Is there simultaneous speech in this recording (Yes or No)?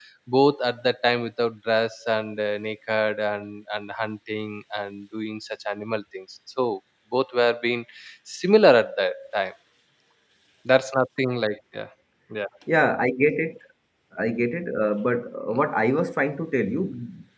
No